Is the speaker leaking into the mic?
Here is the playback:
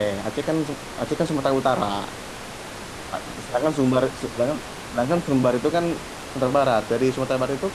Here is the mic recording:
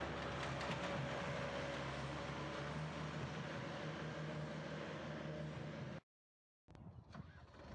No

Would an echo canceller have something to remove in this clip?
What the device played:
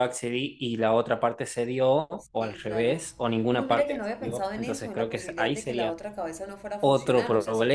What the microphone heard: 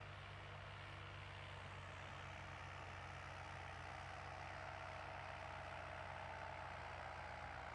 No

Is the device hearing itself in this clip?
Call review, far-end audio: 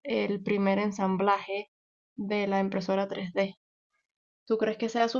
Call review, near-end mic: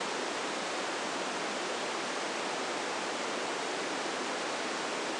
No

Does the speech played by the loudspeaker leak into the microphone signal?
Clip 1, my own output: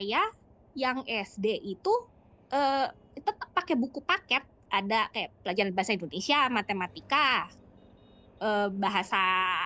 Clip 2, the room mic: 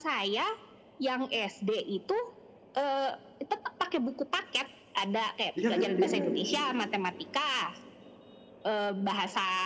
Yes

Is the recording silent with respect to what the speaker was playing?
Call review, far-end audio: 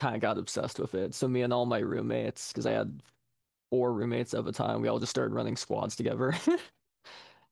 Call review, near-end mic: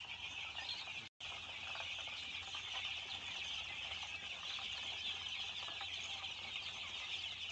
Yes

